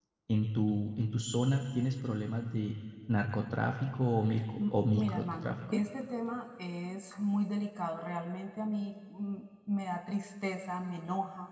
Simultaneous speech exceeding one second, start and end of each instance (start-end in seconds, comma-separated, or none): 4.6-5.8